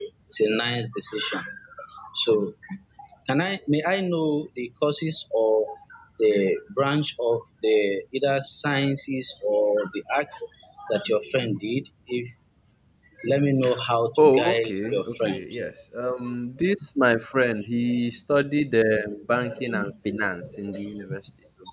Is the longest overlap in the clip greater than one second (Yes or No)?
Yes